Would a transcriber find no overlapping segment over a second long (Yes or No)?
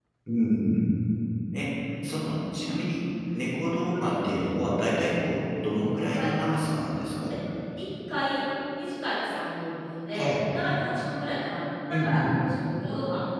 Yes